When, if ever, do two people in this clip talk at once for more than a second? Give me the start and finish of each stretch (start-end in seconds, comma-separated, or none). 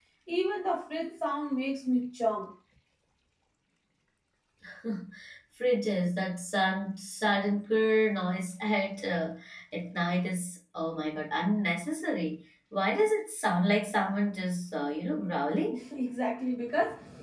none